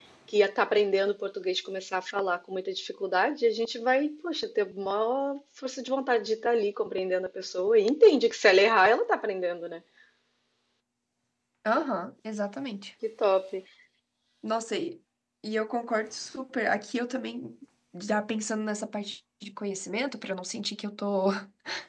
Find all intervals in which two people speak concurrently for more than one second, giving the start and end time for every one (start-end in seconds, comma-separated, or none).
none